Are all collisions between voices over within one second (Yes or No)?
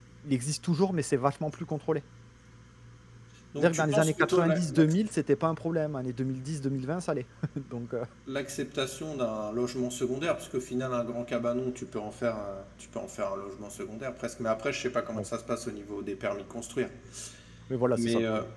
No